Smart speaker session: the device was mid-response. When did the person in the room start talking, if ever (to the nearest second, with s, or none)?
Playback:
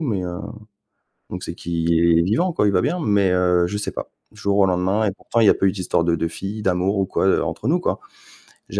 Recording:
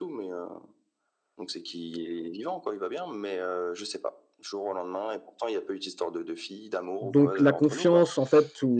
7 s